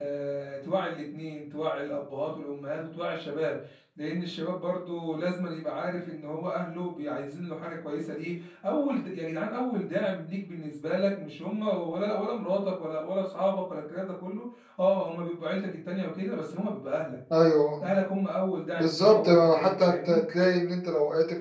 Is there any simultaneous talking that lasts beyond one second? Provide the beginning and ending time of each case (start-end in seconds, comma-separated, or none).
18.8-20.2